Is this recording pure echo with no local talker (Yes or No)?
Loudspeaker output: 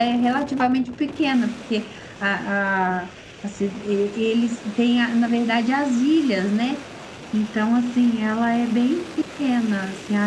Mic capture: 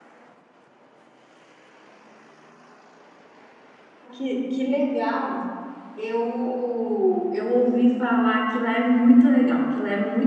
No